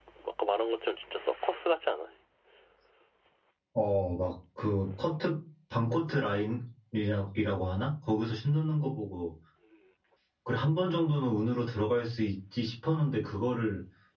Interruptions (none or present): none